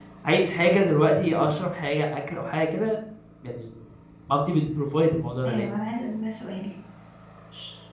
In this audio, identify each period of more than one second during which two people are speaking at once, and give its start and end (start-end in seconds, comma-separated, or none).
none